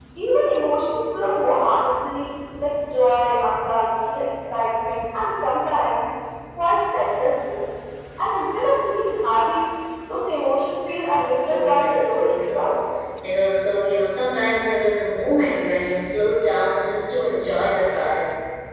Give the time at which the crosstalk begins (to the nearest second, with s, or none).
11 s